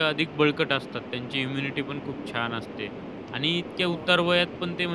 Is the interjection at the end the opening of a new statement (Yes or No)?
No